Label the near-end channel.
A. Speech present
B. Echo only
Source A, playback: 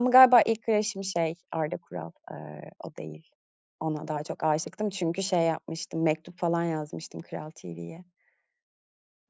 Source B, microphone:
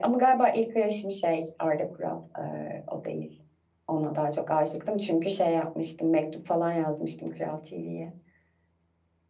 B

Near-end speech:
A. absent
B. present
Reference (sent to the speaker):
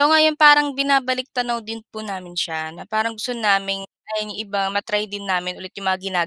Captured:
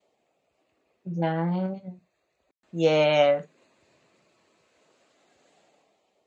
B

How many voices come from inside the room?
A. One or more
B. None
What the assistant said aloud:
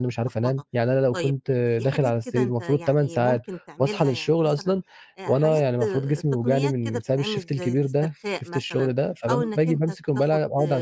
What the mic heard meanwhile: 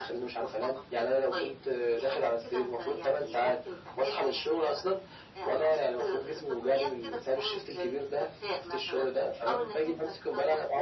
B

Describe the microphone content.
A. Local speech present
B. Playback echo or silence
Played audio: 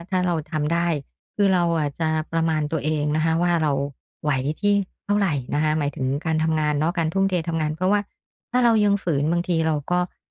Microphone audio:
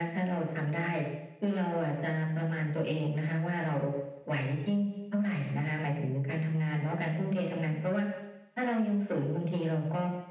B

